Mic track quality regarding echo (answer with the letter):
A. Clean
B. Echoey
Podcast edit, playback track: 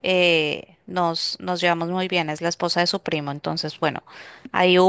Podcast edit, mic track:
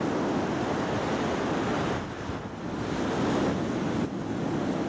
A